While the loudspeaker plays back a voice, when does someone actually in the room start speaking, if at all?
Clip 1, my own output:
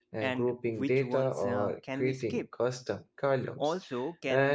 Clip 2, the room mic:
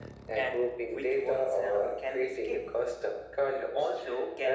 none

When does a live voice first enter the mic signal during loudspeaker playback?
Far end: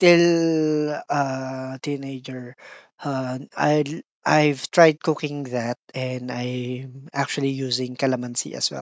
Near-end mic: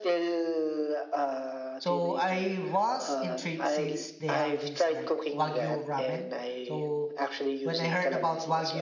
2 s

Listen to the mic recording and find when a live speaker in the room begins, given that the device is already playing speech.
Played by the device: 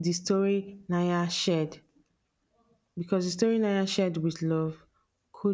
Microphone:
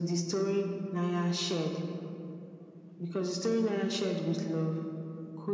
none

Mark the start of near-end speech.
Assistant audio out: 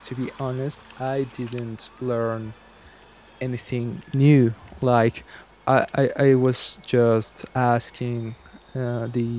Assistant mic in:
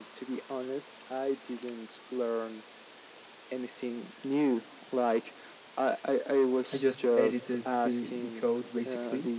7 s

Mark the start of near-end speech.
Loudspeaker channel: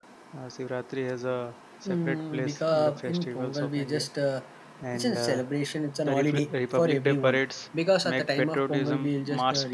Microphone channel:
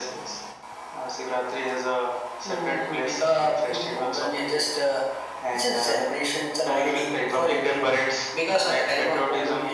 none

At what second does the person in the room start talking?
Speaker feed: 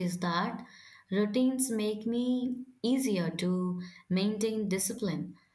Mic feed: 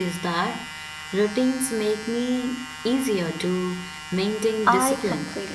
5 s

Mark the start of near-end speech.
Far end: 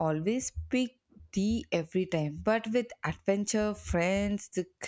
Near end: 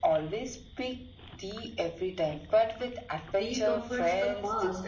3 s

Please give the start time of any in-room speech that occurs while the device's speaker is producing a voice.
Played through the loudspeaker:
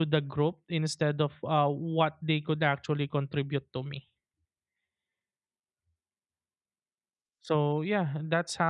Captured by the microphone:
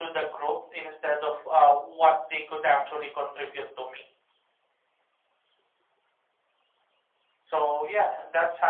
none

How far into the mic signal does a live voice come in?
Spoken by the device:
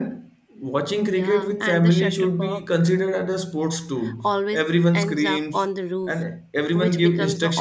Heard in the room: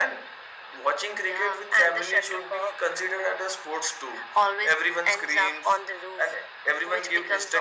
none

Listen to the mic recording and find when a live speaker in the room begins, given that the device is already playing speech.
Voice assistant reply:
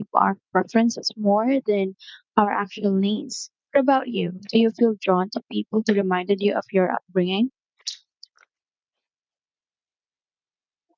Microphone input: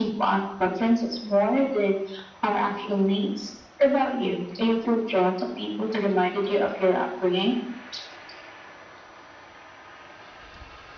none

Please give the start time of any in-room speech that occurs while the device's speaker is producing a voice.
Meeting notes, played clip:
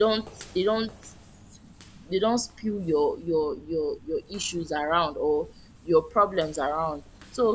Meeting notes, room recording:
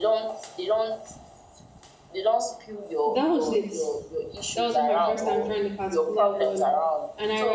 3 s

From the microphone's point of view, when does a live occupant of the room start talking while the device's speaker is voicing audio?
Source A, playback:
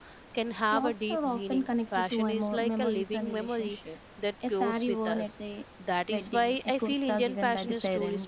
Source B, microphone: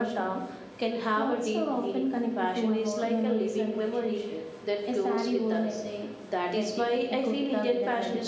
none

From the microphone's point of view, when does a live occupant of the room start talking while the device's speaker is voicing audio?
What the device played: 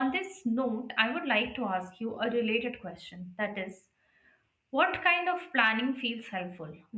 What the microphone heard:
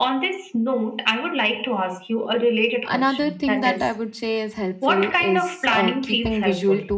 3 s

